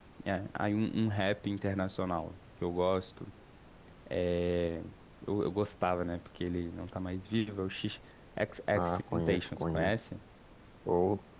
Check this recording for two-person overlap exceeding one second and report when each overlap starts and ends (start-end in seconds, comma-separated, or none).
8.7-10.0